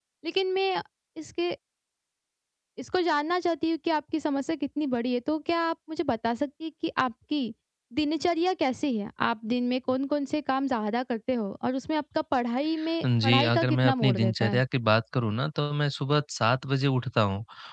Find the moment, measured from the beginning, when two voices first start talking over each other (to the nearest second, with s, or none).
13 s